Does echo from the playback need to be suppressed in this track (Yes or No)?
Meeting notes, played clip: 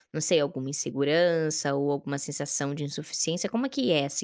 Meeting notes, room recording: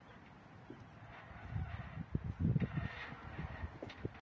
No